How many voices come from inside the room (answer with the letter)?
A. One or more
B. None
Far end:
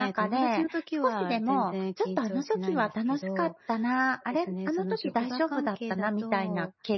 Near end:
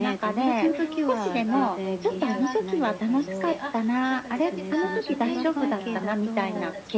A